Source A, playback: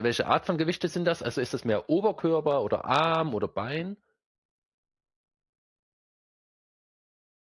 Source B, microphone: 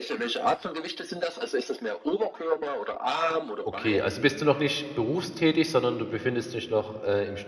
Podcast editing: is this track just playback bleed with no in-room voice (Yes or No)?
No